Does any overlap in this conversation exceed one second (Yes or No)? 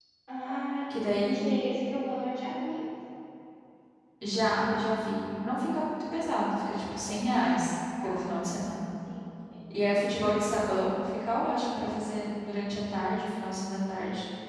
No